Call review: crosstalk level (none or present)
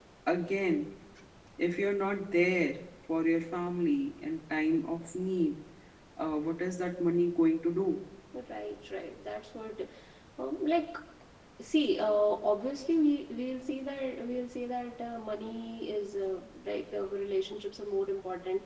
none